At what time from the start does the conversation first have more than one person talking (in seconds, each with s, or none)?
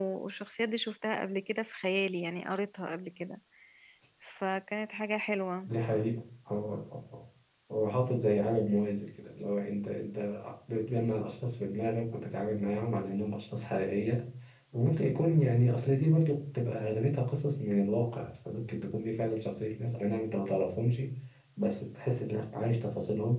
none